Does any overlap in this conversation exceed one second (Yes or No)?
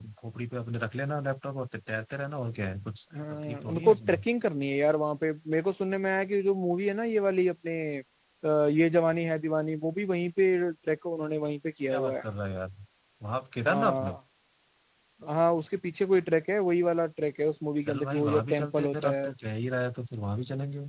Yes